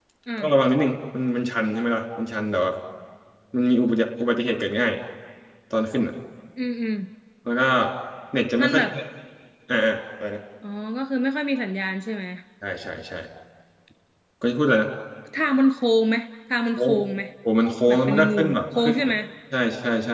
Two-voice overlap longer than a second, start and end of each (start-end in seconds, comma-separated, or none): 17.9-19.1